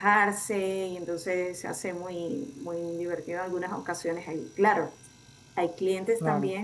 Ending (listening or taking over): listening